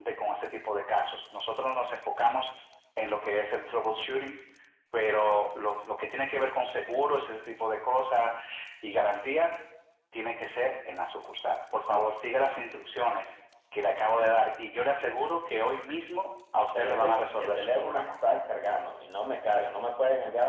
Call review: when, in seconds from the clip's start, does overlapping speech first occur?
16.7 s

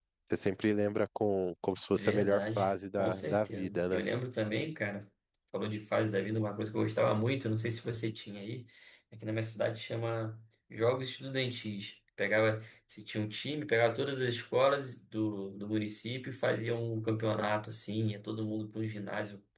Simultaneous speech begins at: 2.0 s

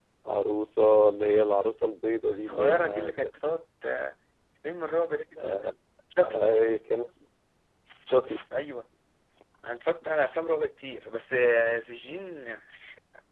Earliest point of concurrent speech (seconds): 2.3 s

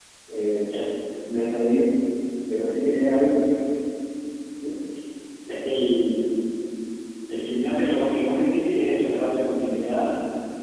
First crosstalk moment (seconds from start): none

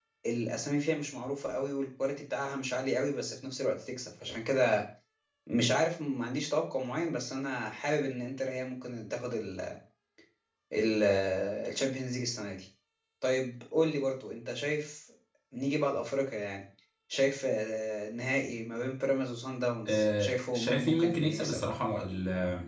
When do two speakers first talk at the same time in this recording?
19.9 s

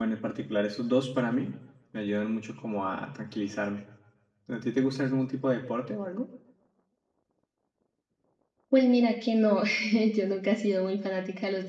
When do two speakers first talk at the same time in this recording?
none

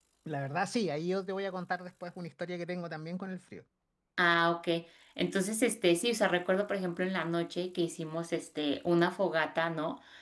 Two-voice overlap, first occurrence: none

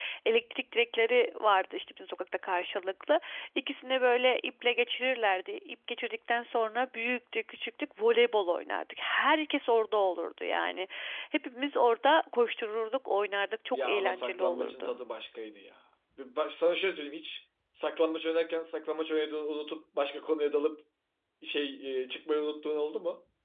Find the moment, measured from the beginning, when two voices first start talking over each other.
13.7 s

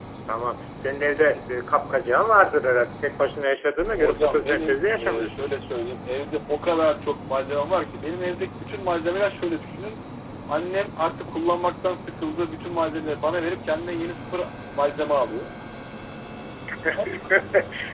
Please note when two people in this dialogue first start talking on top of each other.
3.9 s

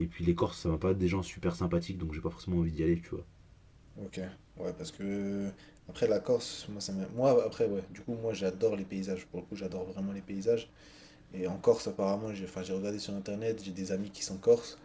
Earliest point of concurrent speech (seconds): none

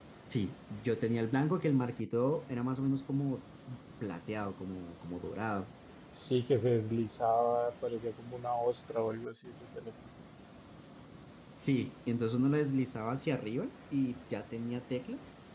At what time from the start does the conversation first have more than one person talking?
none

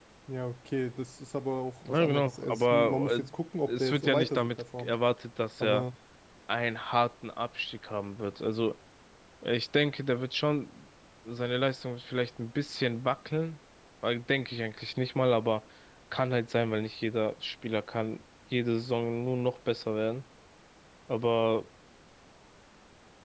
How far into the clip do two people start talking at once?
1.9 s

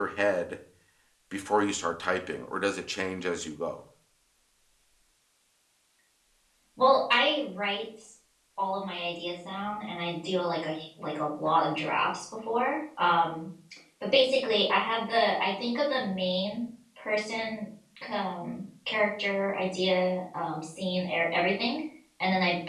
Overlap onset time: none

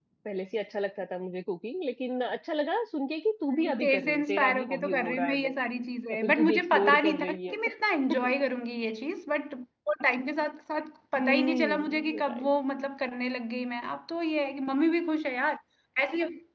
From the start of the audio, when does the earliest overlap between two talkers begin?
3.5 s

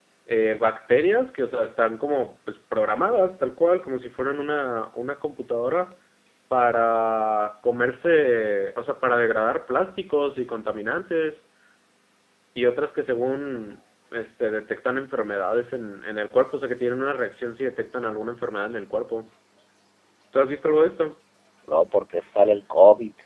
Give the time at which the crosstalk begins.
none

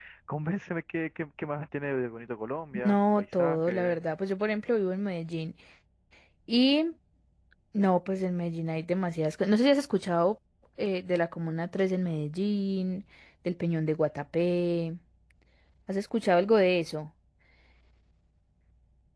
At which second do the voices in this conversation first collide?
2.7 s

